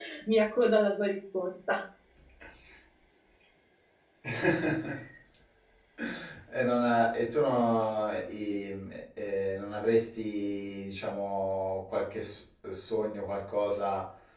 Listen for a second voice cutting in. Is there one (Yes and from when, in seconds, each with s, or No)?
No